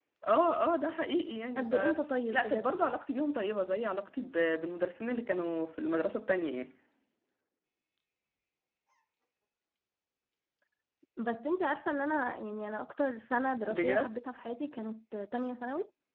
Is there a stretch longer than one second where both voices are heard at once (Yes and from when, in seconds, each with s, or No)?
No